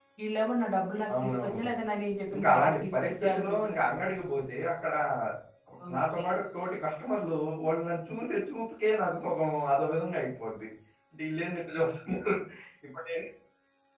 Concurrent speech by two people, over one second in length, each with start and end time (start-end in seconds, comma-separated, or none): 2.3-3.8